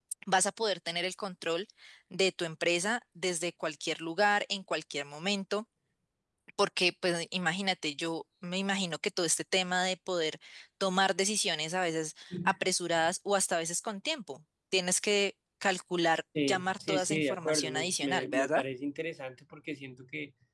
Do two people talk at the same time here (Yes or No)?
Yes